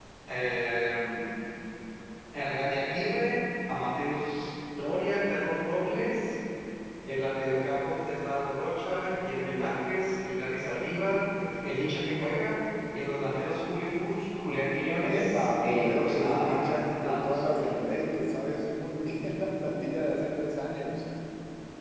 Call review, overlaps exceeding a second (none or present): present